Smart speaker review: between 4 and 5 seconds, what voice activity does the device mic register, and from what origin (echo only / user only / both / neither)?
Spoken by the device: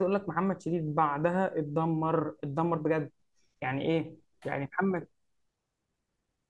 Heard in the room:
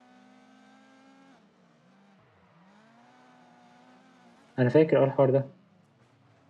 user only